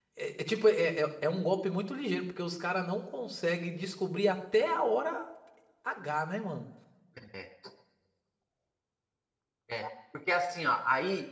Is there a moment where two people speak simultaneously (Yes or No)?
No